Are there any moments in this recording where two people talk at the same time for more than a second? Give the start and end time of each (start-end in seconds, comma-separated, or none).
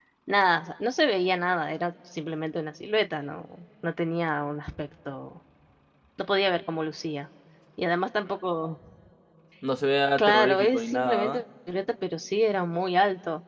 10.2-11.4